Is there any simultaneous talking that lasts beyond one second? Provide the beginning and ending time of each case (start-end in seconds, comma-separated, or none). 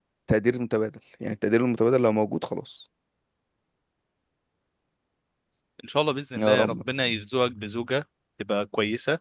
none